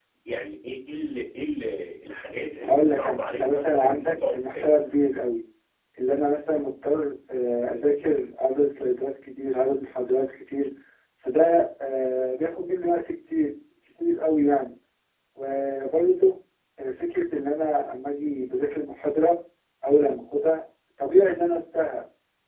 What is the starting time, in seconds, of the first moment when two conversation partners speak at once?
2.6 s

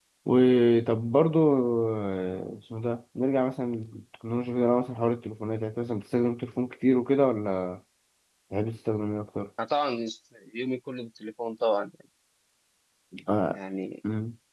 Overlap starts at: none

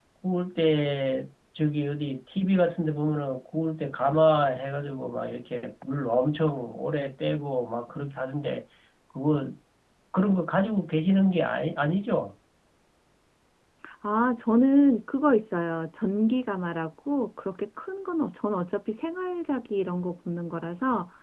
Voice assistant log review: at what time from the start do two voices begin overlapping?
none

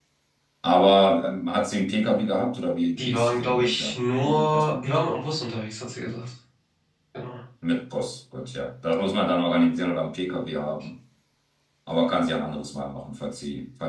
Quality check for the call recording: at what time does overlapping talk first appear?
3.0 s

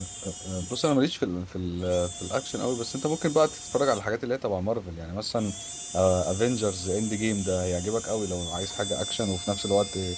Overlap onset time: none

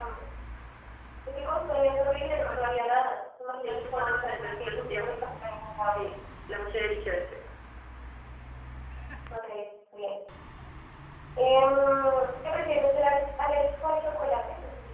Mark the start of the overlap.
3.6 s

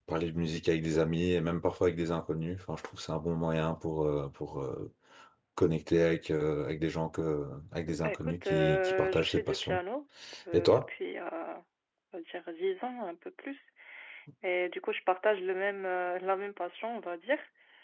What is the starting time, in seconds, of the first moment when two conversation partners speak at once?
8.0 s

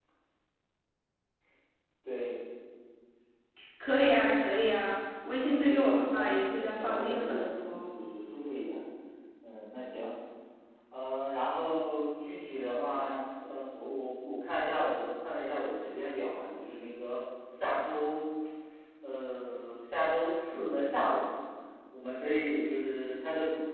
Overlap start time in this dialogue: 5.4 s

